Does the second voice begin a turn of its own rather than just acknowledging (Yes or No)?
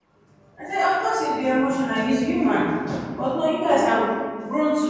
No